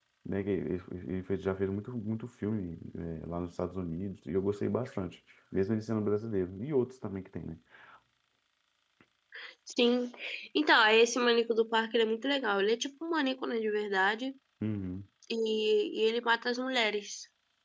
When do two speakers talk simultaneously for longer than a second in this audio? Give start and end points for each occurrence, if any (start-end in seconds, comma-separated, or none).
none